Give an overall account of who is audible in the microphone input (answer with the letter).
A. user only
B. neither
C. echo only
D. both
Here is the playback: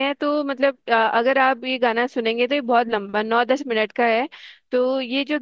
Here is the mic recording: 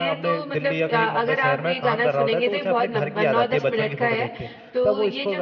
D